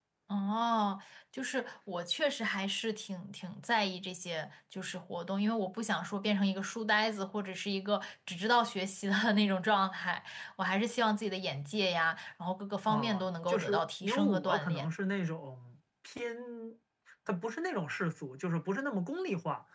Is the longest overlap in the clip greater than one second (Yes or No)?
Yes